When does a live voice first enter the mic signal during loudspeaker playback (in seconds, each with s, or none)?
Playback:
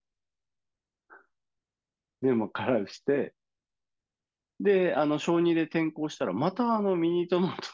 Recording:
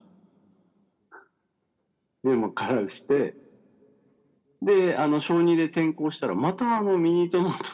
none